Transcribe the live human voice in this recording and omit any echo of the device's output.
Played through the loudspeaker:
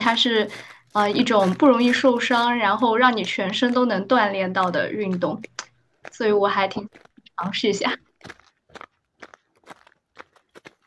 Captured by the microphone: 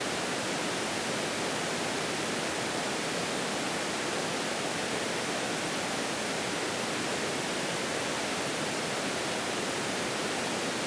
none

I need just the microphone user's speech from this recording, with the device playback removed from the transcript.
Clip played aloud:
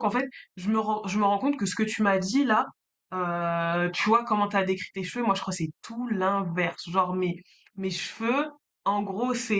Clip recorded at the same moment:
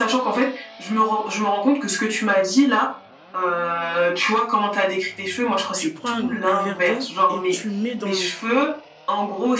tu prends un, un verre d'eau et tu mets dans l'eau.

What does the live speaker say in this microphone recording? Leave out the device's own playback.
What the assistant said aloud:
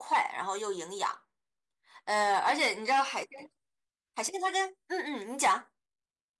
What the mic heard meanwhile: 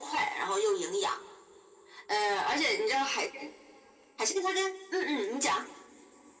none

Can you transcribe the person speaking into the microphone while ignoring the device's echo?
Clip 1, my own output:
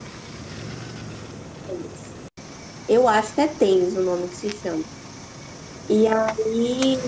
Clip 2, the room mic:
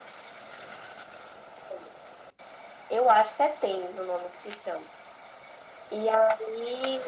none

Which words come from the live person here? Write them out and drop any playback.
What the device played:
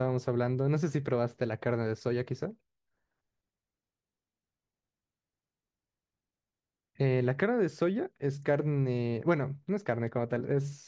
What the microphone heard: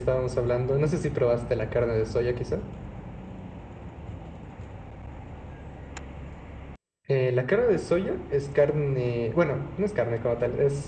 none

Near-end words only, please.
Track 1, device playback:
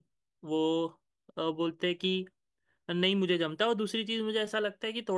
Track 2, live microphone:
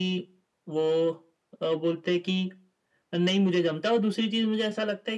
none

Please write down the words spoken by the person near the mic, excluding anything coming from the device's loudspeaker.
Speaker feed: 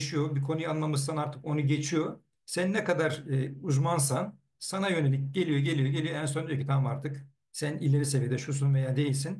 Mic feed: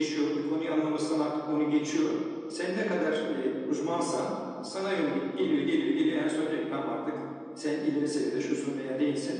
none

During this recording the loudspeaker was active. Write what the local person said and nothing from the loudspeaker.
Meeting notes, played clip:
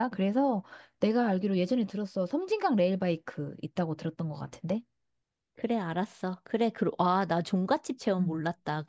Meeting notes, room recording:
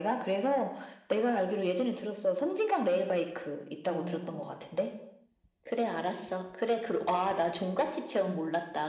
아.

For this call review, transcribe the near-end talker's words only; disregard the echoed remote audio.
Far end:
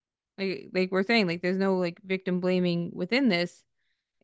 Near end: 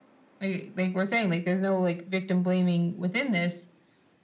none

